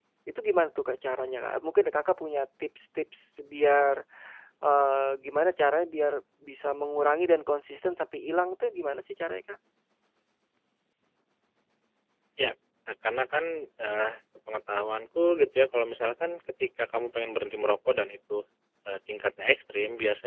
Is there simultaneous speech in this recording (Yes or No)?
No